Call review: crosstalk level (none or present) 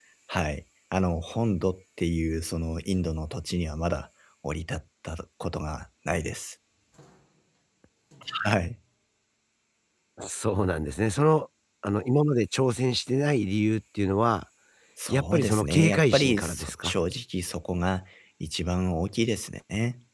present